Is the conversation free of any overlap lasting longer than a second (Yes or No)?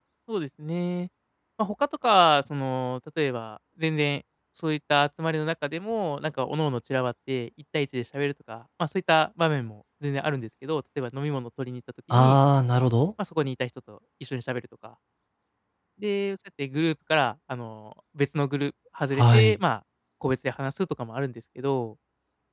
Yes